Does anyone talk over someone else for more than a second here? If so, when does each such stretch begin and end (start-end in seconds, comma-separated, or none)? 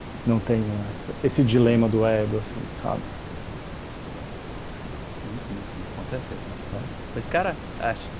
none